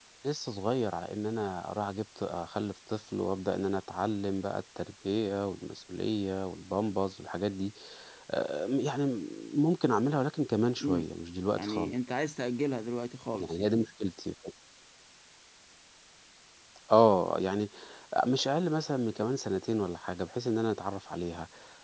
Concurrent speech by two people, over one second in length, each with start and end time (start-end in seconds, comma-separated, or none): none